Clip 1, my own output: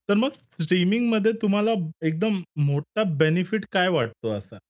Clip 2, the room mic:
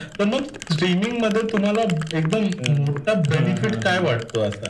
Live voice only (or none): हं. हां, हां, हां.